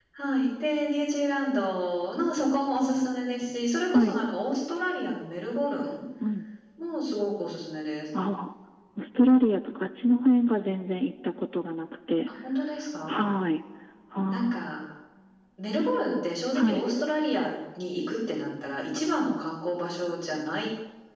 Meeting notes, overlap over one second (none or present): none